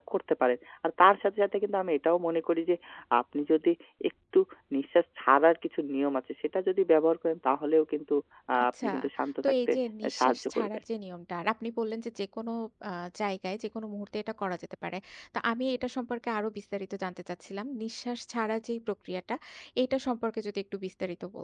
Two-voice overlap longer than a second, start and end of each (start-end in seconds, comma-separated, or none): 9.4-10.8